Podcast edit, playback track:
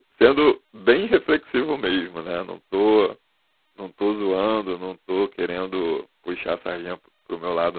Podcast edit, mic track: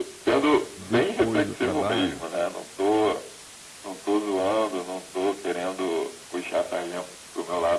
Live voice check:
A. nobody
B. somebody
B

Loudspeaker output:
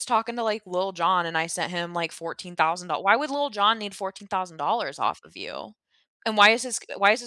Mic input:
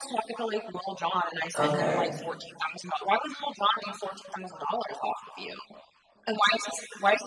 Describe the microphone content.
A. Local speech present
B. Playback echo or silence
A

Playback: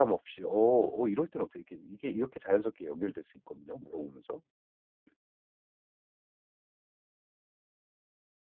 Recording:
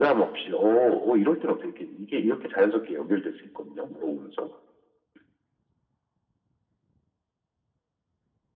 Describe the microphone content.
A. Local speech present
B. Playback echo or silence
B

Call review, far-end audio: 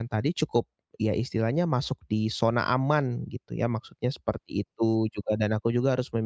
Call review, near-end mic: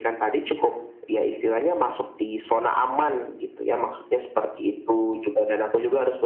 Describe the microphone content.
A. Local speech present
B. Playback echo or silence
B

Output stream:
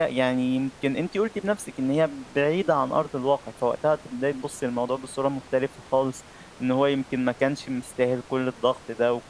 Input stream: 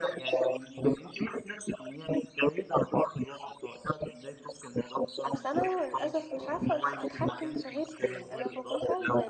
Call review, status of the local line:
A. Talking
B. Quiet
A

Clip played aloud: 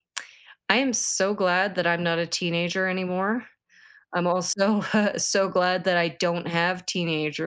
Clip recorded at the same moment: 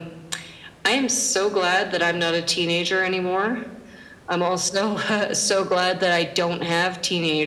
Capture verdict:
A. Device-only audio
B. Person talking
A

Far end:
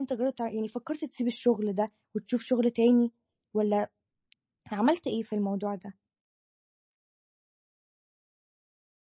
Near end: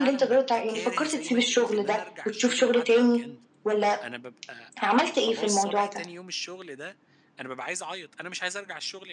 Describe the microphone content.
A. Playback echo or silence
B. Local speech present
B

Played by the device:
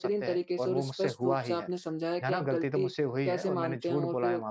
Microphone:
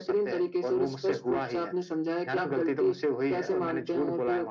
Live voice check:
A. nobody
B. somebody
A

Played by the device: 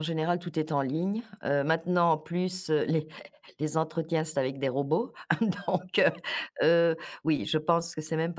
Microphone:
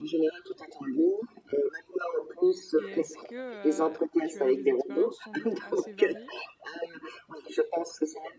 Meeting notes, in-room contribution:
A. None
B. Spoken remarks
B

